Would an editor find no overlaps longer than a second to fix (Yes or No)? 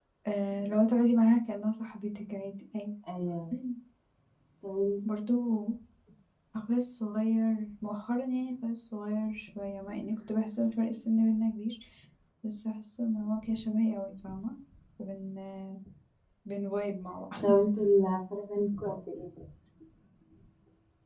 Yes